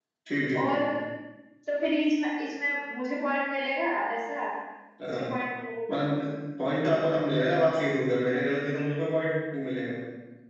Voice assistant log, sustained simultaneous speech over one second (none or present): none